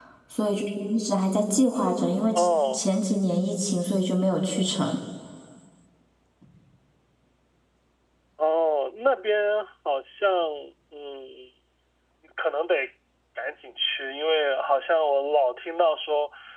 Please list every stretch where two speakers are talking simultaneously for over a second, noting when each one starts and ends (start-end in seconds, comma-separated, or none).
none